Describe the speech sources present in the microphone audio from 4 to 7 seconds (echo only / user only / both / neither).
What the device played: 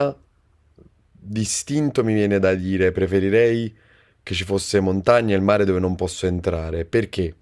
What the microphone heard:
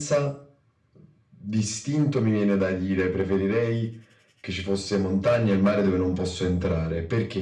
echo only